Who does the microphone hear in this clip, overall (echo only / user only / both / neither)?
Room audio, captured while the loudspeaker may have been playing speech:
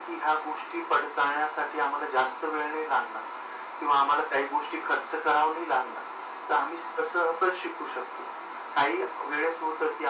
echo only